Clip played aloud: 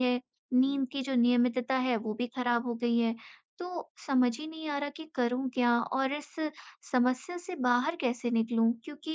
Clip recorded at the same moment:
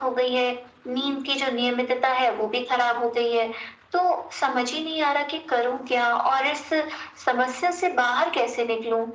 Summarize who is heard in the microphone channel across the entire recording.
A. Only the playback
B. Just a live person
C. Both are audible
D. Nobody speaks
A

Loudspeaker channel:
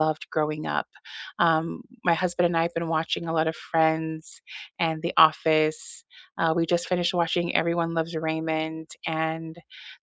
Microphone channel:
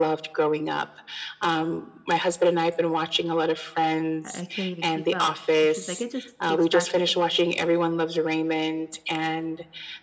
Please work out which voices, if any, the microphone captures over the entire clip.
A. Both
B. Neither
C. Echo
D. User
A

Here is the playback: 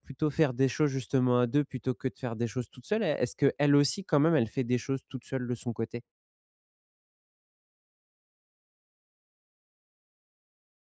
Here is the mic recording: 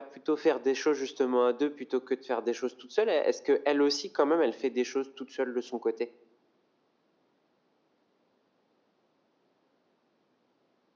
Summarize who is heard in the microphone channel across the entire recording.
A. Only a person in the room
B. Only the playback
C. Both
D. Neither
B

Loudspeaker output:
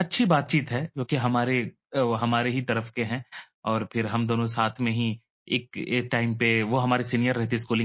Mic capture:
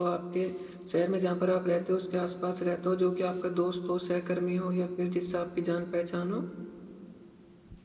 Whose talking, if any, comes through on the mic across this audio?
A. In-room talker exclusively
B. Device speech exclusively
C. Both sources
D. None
A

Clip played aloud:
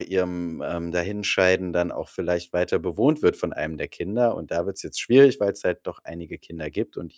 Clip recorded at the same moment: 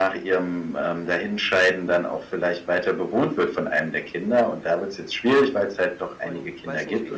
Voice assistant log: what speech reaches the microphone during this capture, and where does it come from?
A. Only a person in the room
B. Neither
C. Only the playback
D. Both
D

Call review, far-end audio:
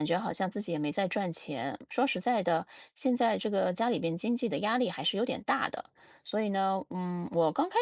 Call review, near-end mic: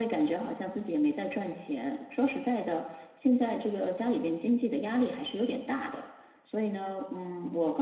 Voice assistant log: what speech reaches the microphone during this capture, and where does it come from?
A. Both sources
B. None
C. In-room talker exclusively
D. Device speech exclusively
D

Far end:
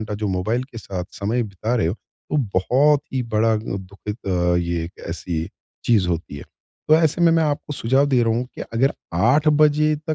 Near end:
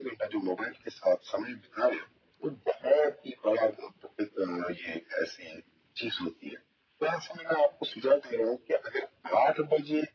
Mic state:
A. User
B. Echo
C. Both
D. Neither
B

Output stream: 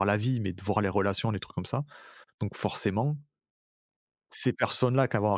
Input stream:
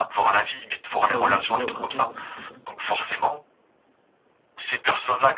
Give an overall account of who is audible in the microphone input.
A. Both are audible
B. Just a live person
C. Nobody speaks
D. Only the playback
A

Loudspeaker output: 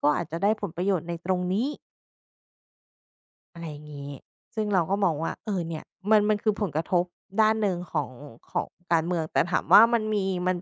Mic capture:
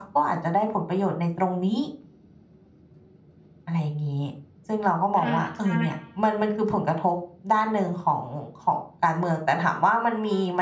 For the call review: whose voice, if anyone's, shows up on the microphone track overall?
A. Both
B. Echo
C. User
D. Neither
A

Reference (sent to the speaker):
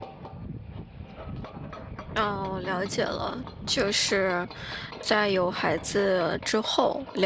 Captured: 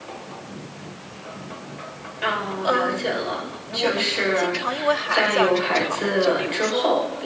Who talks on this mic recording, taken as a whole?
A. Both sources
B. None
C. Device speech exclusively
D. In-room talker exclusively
A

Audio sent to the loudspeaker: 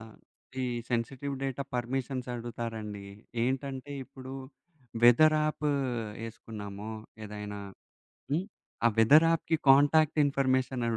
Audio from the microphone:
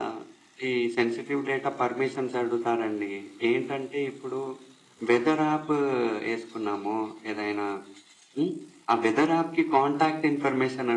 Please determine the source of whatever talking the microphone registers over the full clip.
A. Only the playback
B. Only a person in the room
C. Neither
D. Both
A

